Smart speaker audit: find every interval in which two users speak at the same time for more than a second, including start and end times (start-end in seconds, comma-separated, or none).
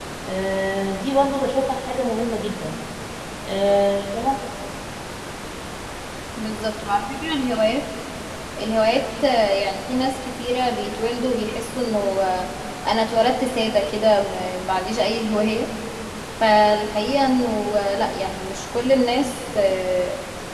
none